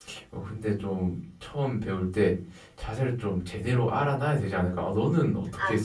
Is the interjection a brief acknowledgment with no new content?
No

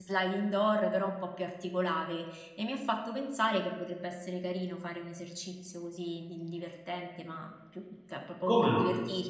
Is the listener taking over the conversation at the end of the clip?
No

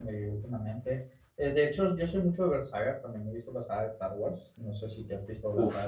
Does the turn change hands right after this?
Yes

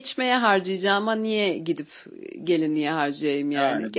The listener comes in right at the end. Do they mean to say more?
Yes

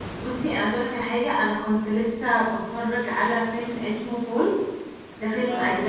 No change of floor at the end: Yes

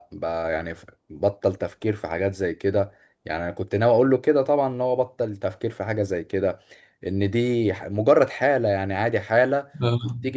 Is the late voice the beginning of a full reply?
No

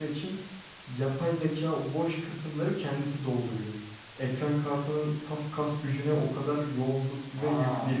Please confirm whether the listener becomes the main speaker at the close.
Yes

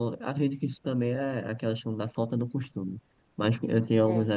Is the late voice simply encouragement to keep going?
Yes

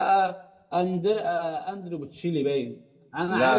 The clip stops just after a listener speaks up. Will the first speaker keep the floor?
Yes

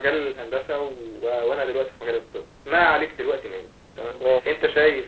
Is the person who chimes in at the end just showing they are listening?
Yes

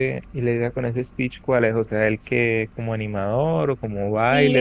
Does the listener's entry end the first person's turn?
Yes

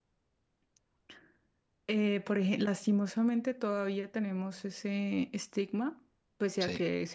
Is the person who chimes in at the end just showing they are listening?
Yes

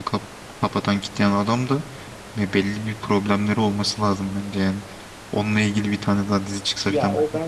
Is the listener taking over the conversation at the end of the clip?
Yes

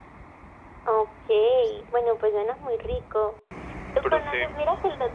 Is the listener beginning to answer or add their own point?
No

